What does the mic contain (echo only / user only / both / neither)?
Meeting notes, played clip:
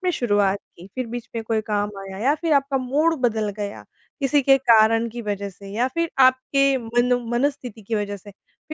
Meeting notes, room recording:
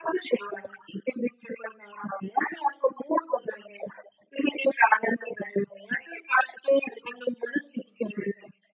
echo only